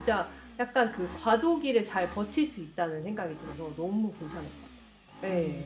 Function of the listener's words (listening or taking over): taking over